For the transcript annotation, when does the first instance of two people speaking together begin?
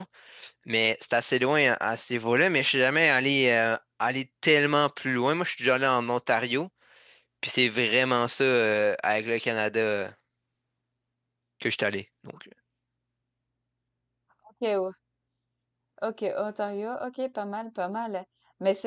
none

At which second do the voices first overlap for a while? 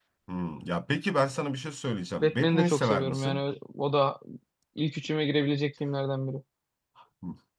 2.2 s

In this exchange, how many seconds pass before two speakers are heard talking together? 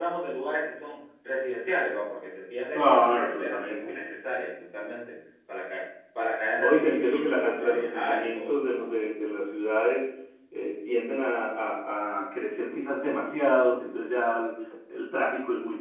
2.8 s

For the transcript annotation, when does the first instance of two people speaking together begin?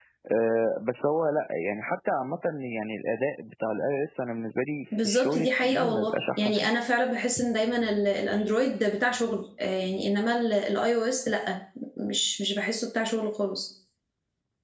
4.9 s

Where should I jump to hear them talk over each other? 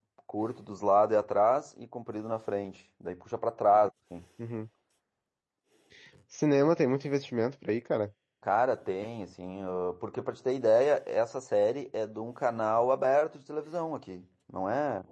none

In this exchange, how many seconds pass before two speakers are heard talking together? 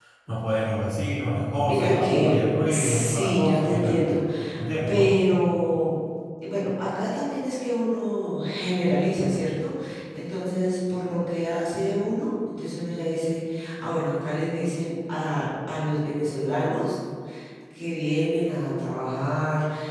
1.7 s

